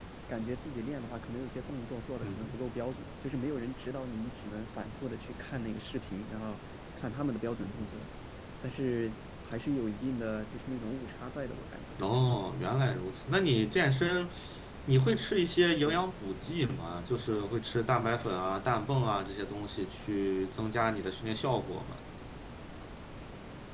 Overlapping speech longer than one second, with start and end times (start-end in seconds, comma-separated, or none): none